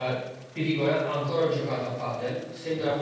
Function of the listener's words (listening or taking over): listening